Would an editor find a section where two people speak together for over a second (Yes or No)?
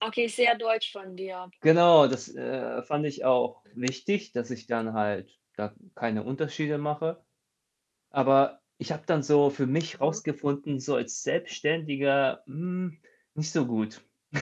No